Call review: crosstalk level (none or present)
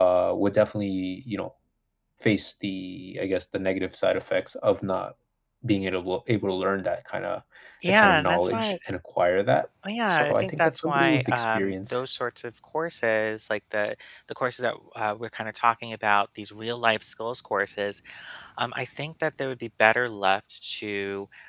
present